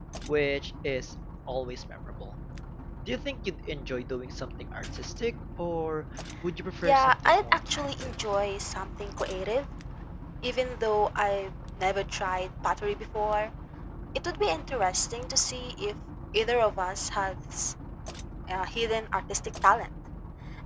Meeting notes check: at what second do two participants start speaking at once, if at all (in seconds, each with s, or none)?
6.8 s